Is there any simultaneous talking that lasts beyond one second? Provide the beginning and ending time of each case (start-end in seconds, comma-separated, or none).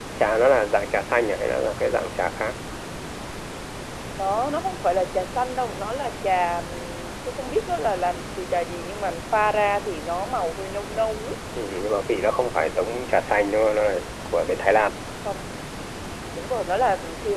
none